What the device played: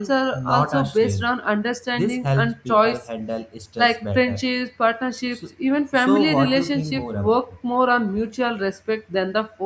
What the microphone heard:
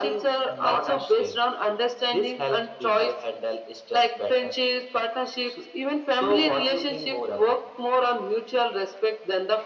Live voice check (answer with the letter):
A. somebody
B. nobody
B